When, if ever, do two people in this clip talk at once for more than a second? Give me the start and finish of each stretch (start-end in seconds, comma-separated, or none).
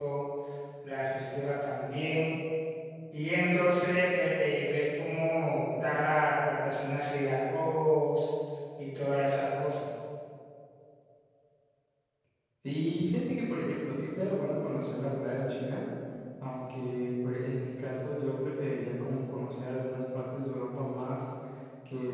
none